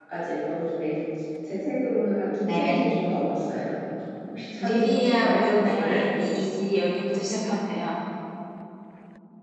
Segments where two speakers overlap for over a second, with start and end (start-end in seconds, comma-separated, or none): 4.6-6.0